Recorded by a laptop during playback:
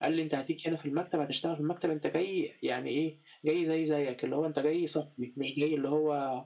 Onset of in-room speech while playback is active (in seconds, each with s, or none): none